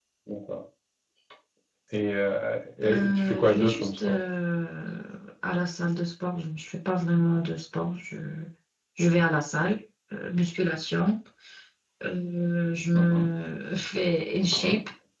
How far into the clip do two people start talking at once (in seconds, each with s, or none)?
2.8 s